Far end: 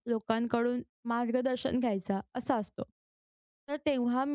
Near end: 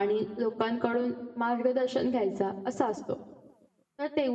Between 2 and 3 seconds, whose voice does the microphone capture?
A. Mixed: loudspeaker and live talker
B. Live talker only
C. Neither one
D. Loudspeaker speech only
D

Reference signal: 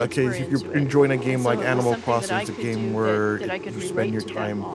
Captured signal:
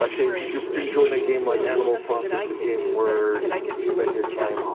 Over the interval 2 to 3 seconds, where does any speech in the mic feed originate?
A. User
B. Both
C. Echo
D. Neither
C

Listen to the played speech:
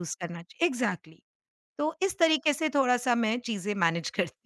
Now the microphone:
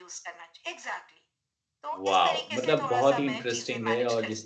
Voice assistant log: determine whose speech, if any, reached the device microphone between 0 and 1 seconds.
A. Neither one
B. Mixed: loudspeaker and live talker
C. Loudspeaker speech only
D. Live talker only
C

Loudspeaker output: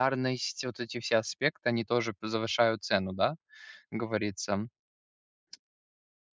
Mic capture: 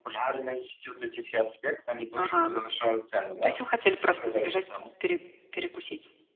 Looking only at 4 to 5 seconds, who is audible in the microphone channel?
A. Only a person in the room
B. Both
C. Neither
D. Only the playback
B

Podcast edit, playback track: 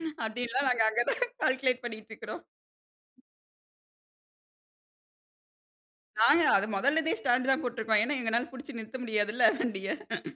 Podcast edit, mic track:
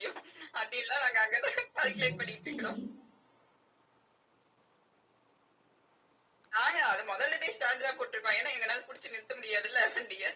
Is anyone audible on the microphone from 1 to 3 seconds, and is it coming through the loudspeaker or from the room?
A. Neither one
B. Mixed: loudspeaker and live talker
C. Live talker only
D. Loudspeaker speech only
B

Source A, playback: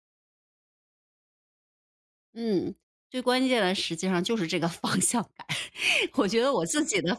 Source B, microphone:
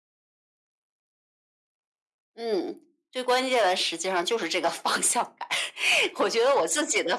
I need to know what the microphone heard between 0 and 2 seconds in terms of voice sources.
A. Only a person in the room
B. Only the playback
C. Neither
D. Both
C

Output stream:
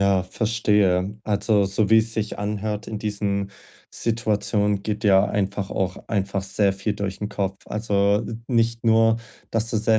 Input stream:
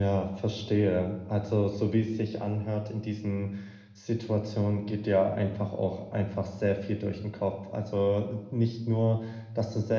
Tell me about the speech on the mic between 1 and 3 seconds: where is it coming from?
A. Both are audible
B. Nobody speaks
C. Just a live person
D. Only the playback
D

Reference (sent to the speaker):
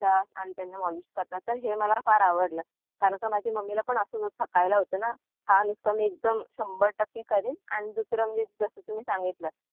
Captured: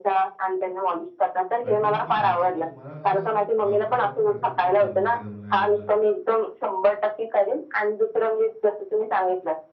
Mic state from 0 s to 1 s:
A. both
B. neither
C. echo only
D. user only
C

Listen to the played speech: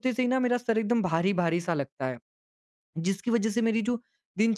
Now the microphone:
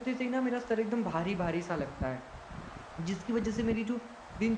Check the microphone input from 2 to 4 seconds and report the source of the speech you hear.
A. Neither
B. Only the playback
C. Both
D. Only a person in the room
B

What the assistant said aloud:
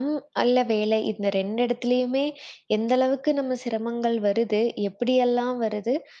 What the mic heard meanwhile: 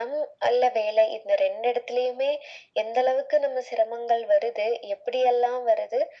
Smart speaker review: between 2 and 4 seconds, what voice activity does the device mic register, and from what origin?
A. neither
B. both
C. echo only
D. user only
C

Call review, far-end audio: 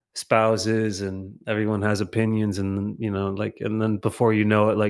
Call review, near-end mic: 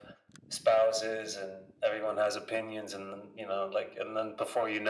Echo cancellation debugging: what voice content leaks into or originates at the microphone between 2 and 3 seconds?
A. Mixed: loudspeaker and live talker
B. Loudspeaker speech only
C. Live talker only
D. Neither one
B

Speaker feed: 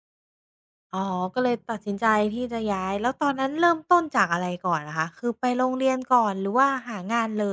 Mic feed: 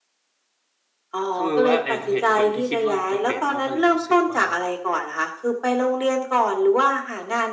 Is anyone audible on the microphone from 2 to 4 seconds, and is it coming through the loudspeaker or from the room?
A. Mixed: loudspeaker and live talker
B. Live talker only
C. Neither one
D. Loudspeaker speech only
A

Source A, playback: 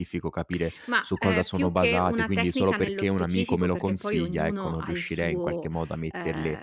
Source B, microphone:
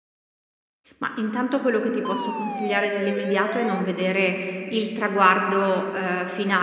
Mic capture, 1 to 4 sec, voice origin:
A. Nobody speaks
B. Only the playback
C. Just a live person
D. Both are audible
C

